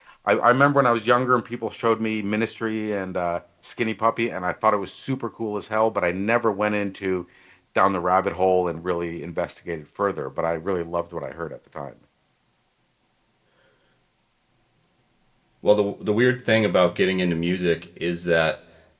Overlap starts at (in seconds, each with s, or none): none